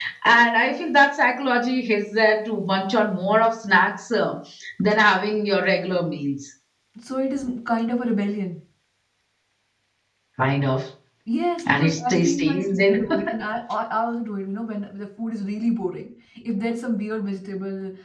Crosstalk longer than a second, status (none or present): present